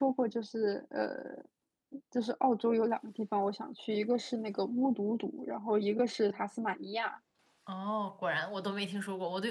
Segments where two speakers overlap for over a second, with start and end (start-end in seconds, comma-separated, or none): none